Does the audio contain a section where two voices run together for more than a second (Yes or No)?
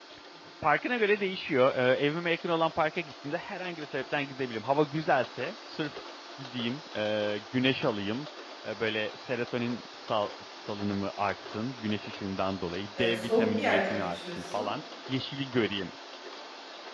Yes